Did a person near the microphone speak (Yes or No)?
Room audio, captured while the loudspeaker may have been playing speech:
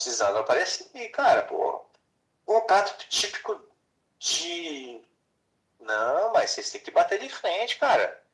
No